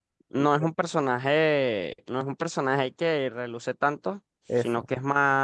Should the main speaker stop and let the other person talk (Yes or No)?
No